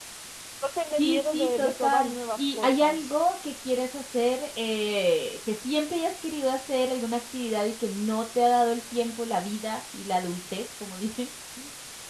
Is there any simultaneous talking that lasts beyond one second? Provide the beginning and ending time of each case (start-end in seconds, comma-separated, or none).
1.0-3.1